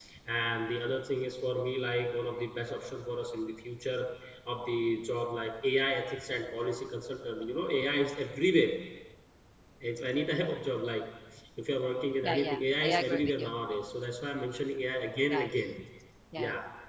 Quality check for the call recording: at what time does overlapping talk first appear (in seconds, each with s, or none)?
12.2 s